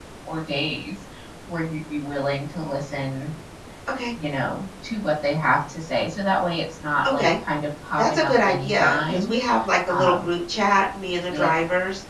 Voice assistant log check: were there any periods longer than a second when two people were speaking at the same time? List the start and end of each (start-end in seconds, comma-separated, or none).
8.0-9.3